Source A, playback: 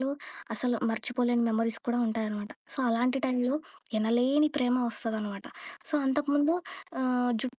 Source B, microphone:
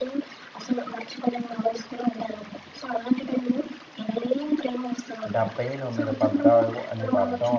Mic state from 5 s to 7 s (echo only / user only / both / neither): both